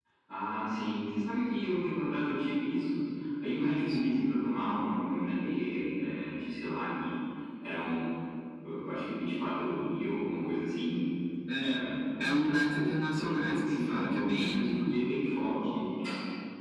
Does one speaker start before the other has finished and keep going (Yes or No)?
Yes